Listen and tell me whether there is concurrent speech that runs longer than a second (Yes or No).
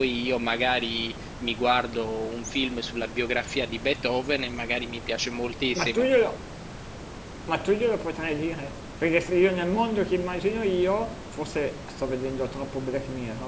No